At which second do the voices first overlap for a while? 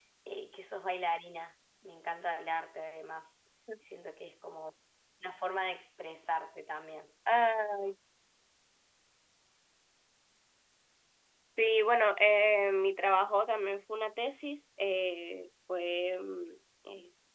none

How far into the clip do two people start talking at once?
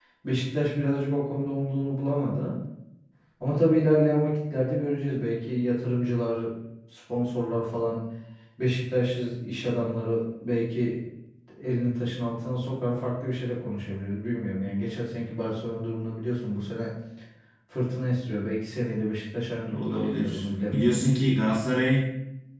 20 s

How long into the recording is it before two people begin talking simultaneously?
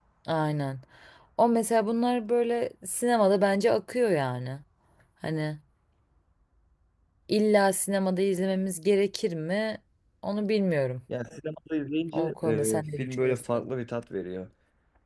12 s

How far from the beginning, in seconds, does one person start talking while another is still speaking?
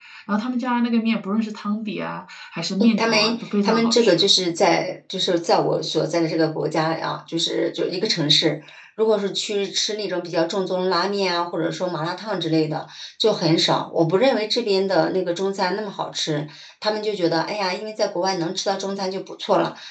3 s

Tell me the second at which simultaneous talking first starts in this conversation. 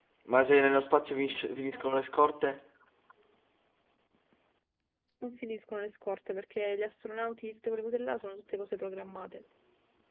none

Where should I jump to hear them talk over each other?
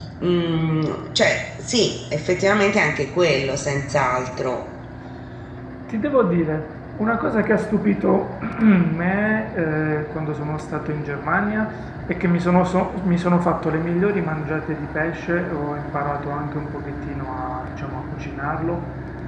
none

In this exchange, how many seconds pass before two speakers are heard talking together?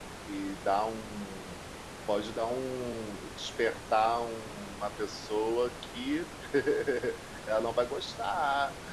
none

